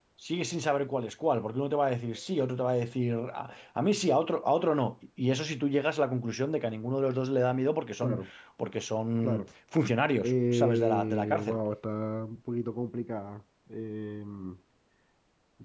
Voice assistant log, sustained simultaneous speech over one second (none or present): present